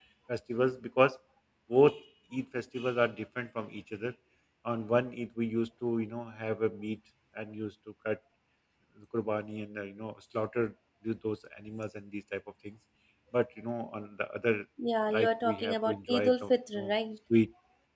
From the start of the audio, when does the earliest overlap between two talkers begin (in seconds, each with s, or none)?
15.1 s